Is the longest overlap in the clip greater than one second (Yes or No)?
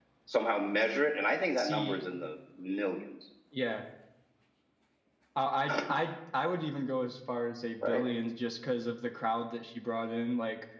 No